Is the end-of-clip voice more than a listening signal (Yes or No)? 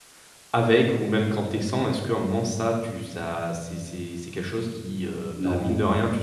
No